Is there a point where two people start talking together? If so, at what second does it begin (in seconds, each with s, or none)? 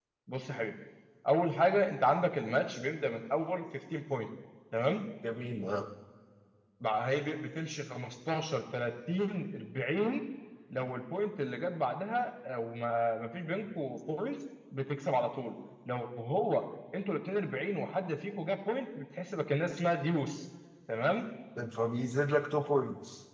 none